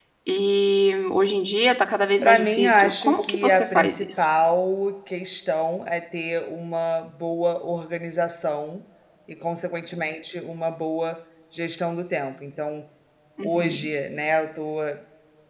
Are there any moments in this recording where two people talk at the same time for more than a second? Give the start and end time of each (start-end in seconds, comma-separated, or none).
2.2-4.2